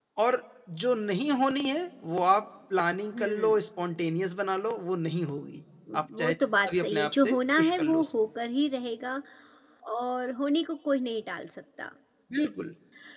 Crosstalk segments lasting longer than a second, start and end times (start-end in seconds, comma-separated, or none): 5.9-8.1